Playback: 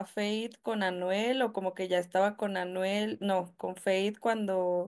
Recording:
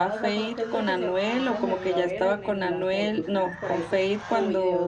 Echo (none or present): present